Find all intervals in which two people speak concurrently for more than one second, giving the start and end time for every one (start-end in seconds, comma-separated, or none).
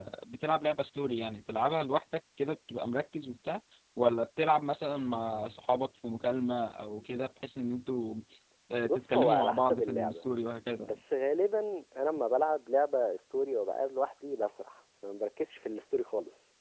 8.8-10.3